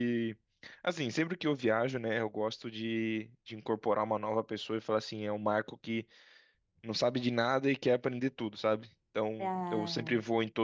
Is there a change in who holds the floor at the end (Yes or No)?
No